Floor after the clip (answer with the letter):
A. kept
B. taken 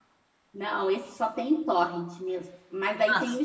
A